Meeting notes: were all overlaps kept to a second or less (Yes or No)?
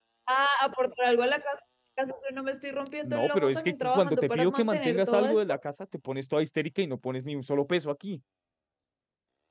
No